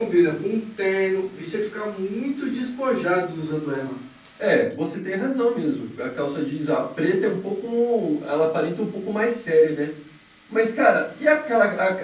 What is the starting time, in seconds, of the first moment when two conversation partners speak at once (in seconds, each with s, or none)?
none